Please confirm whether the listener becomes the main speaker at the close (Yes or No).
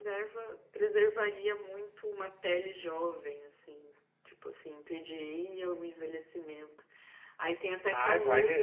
Yes